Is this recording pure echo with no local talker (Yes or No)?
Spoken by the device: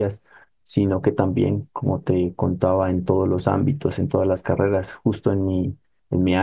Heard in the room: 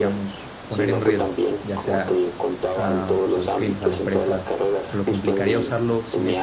No